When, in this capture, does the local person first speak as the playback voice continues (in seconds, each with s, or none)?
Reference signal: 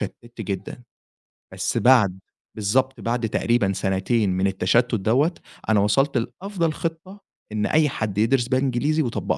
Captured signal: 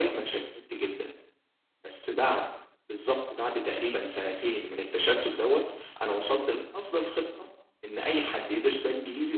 none